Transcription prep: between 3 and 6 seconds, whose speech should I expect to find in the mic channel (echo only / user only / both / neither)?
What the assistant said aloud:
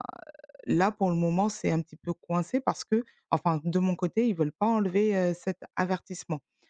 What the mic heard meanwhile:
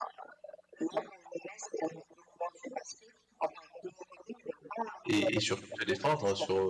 both